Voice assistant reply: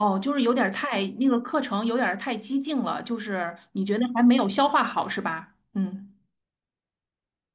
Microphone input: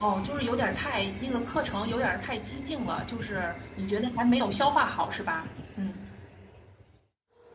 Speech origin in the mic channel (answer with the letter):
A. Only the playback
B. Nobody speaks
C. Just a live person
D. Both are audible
A